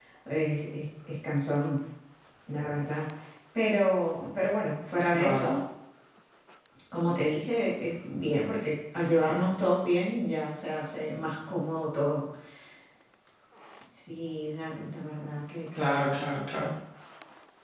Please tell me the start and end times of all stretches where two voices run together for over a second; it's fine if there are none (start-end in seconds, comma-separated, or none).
none